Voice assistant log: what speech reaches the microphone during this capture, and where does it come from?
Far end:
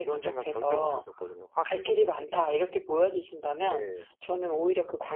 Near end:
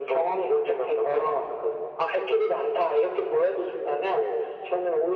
echo only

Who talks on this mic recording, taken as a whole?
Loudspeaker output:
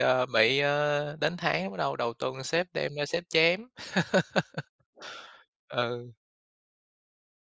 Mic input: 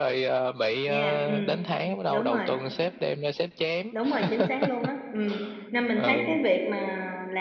both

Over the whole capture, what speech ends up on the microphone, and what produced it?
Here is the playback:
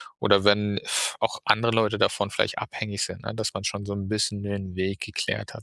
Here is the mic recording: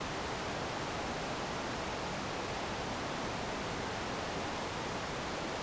neither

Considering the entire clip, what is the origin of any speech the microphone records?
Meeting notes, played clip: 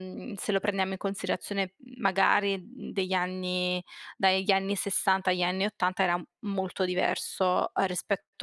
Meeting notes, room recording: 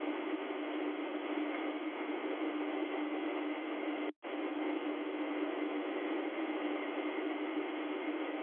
neither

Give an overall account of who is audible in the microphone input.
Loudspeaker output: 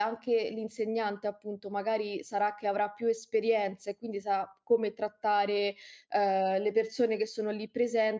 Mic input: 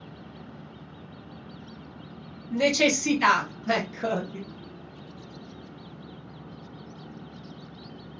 user only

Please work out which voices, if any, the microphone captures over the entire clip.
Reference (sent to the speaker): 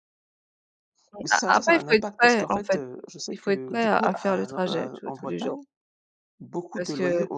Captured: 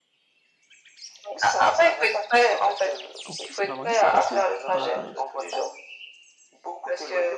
both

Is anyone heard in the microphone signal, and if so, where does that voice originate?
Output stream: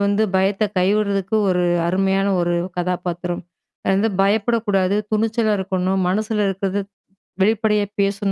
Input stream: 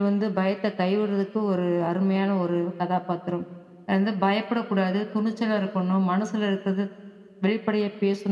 echo only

